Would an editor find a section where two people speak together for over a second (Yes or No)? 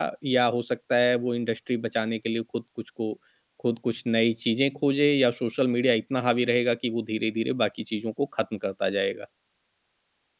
No